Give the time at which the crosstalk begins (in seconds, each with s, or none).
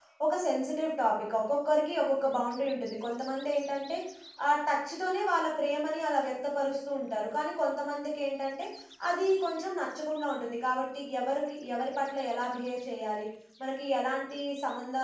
none